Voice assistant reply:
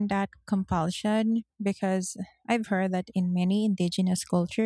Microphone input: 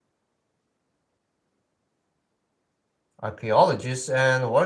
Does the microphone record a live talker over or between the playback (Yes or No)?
Yes